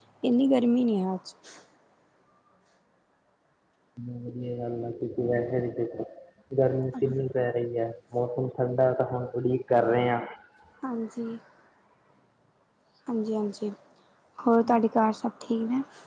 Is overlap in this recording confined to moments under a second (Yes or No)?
Yes